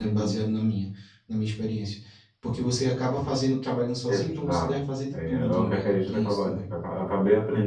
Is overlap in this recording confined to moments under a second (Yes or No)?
No